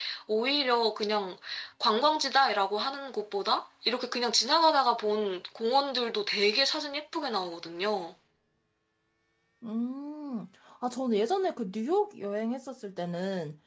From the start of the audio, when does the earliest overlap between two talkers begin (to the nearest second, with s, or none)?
none